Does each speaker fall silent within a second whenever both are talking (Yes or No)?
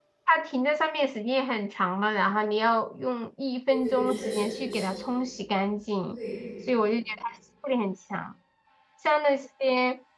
No